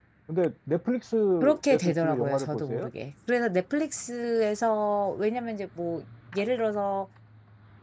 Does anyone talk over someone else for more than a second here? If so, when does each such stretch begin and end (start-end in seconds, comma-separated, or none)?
1.4-2.9